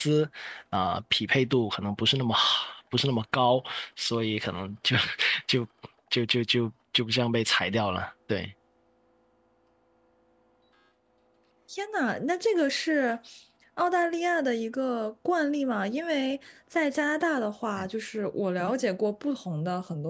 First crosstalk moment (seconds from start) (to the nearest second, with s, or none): none